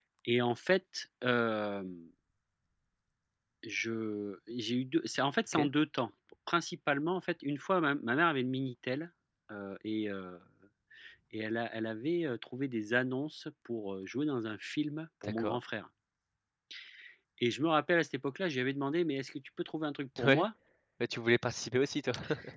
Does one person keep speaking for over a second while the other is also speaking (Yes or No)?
No